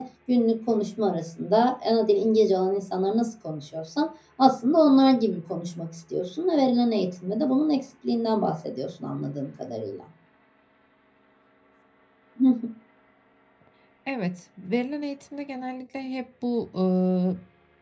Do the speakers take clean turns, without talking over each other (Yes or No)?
Yes